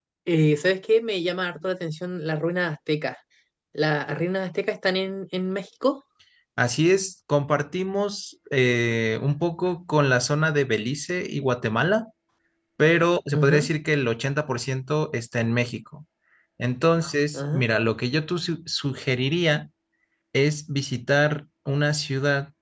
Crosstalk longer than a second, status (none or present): none